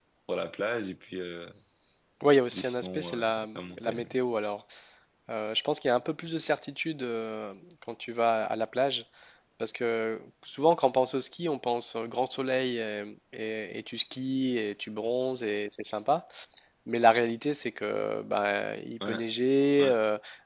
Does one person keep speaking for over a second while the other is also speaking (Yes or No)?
Yes